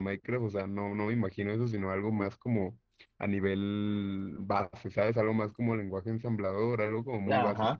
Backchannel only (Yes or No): No